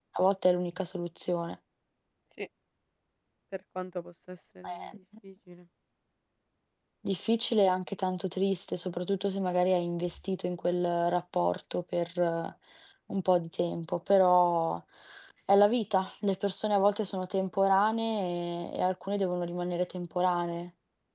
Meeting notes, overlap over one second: none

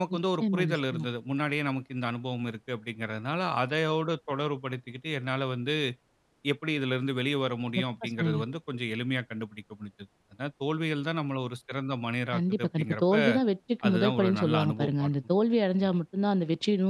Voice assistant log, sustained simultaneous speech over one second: present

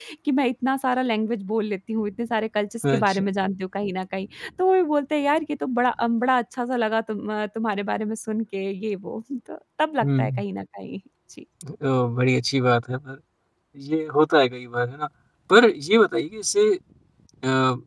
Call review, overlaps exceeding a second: none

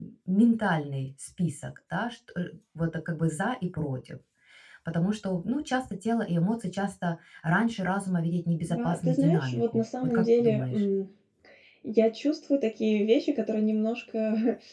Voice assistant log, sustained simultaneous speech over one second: present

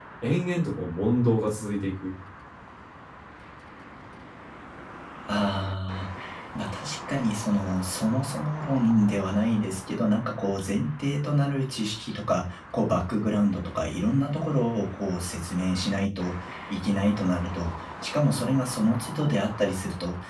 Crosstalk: none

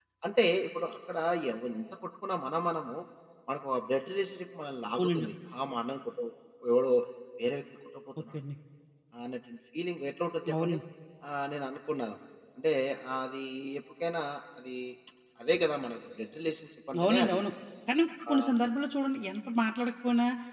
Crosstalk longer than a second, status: none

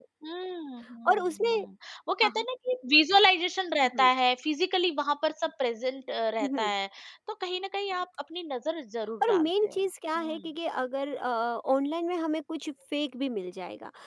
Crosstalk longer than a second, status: none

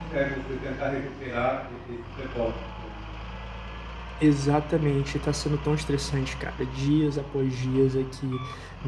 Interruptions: none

